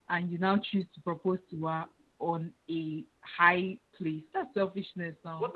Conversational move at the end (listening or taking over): taking over